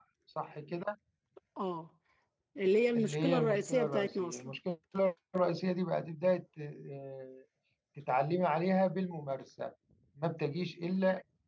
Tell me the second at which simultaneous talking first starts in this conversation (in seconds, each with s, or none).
2.9 s